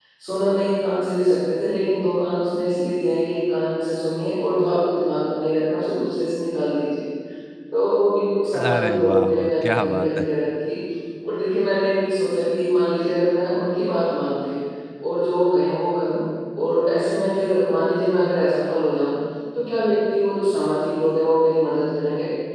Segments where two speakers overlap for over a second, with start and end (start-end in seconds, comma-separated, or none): 8.6-10.2